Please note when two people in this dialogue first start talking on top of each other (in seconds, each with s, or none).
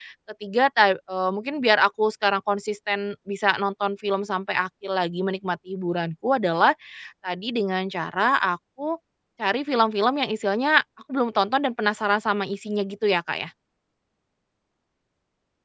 none